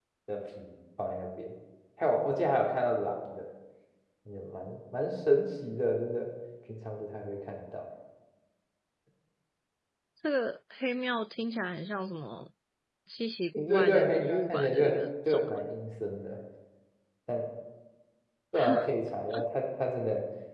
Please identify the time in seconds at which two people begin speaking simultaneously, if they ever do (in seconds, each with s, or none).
13.5 s